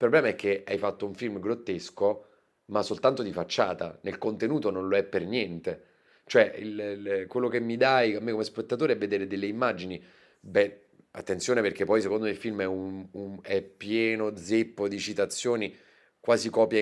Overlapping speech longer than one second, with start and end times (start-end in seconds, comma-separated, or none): none